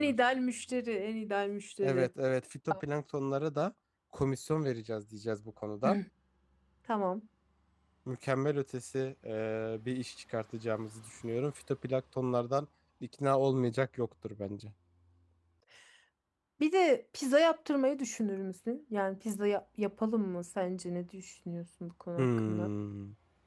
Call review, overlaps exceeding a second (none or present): none